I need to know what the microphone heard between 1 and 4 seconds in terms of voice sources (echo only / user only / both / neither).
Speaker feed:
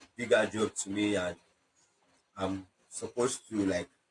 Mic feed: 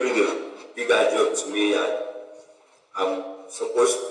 echo only